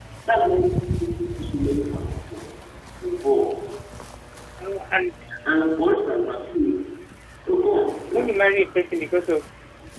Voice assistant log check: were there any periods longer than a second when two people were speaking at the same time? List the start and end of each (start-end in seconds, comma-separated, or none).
none